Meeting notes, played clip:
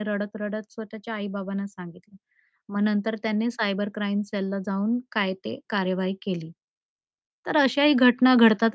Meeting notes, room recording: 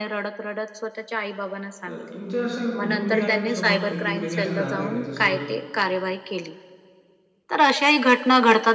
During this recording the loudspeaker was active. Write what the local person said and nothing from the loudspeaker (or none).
तर तुमच्या अशा कुटुंबियांसोबत कधी काही असं झालंय का? जसं